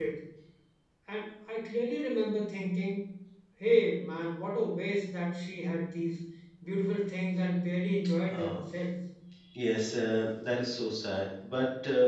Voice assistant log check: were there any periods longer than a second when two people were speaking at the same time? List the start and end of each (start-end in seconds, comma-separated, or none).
none